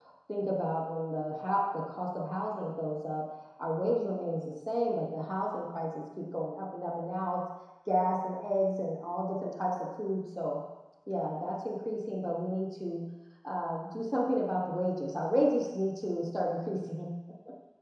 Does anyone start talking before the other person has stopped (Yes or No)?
No